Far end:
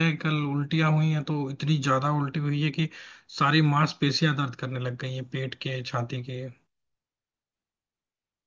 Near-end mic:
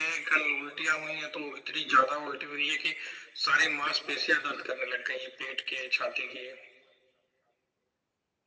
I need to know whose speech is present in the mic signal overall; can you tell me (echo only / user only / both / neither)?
echo only